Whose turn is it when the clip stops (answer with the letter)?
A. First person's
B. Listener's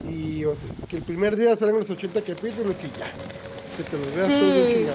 B